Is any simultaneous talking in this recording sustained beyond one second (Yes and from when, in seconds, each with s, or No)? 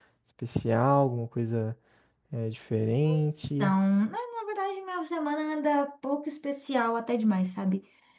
No